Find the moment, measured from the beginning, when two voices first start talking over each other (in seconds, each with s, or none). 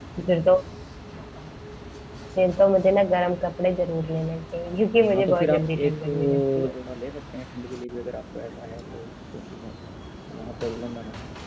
4.7 s